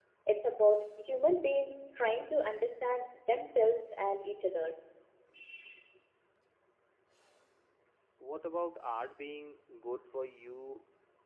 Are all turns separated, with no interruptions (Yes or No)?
Yes